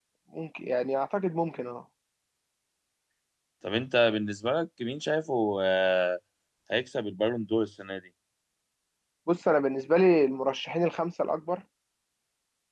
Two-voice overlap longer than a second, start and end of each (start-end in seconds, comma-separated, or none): none